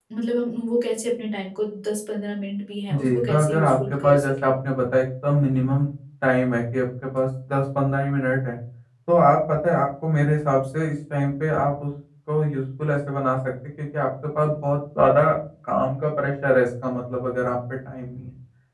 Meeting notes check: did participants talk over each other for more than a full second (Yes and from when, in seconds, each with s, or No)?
Yes, from 2.9 s